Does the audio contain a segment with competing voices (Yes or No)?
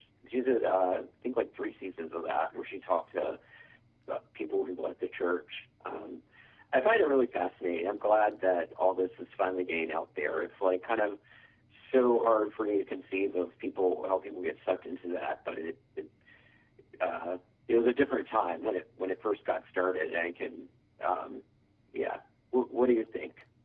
No